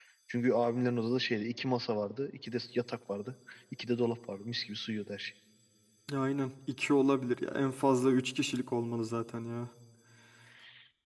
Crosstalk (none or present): none